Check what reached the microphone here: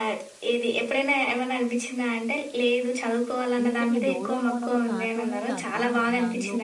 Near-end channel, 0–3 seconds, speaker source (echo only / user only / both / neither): echo only